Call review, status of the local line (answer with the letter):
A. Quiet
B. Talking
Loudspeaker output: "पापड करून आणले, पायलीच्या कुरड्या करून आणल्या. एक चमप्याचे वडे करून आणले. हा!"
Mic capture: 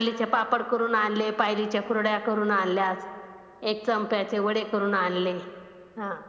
A